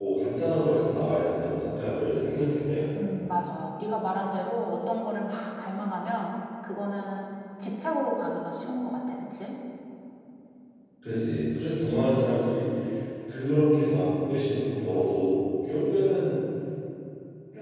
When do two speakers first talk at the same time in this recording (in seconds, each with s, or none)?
none